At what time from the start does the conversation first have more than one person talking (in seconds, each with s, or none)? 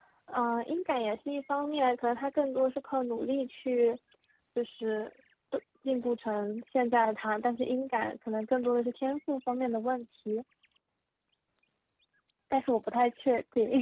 none